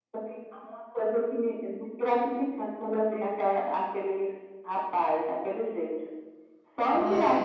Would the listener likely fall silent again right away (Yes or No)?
Yes